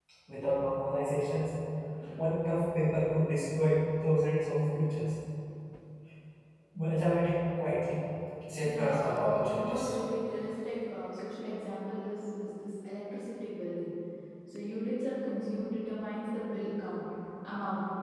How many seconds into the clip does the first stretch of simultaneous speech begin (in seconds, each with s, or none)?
8.6 s